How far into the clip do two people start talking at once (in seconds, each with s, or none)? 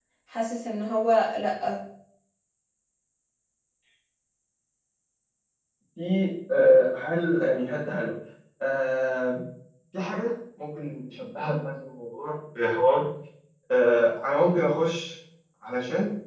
none